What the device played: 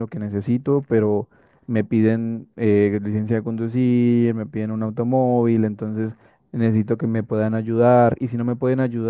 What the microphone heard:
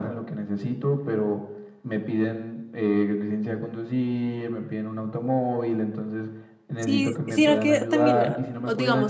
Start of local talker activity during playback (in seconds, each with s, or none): 6.8 s